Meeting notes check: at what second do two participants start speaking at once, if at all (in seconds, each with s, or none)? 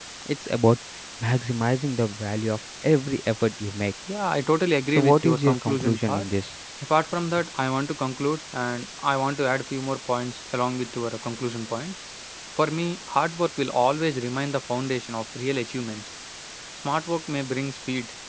5.0 s